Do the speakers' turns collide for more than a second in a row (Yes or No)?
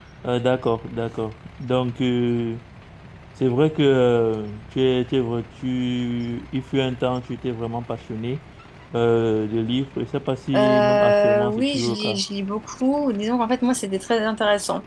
Yes